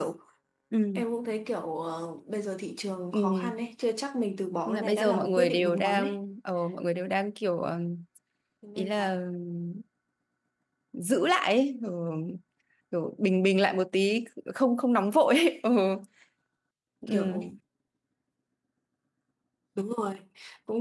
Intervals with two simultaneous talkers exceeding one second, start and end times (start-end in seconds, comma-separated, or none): 4.7-6.2